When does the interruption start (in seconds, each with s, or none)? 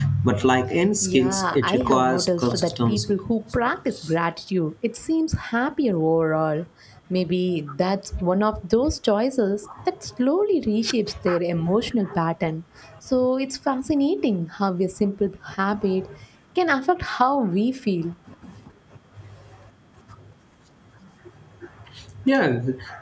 1.0 s